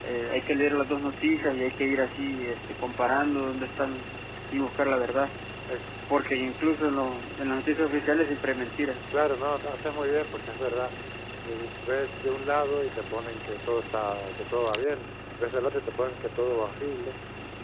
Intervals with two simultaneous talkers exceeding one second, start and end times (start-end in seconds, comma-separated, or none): none